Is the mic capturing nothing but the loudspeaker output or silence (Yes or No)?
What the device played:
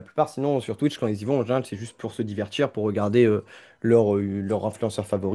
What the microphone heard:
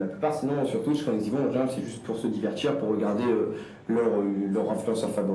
Yes